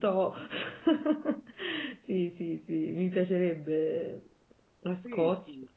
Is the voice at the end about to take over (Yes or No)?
Yes